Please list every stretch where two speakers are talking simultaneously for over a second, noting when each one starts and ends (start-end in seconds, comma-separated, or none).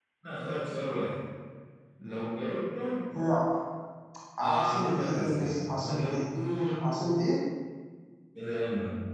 4.4-6.2